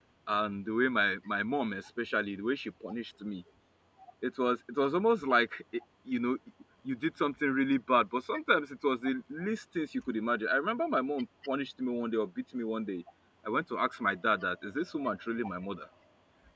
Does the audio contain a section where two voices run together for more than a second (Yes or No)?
No